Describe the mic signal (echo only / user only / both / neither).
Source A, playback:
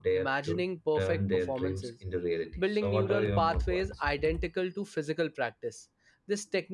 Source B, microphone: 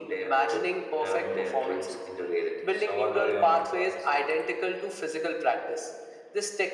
echo only